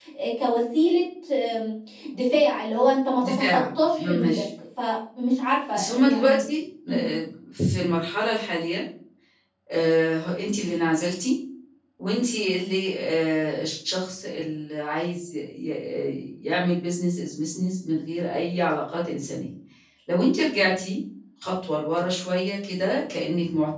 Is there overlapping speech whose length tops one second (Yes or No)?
Yes